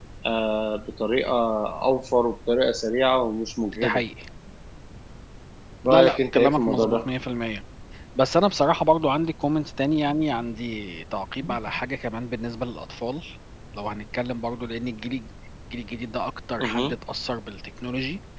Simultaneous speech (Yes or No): Yes